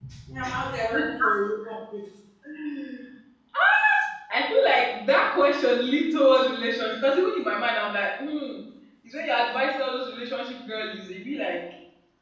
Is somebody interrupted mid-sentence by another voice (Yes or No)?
No